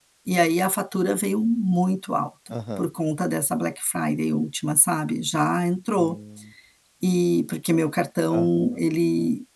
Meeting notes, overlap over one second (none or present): none